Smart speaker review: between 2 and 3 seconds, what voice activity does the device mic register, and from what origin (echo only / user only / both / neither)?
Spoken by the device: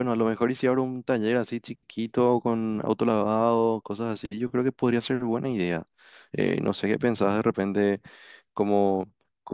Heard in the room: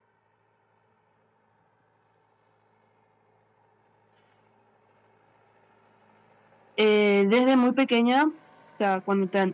neither